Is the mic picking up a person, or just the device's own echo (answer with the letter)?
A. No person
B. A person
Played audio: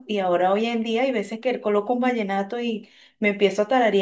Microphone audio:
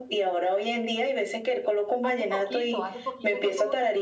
B